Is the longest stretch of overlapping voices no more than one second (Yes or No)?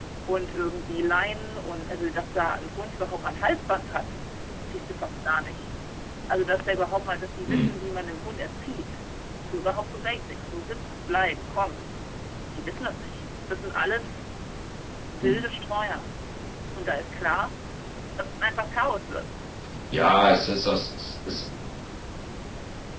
Yes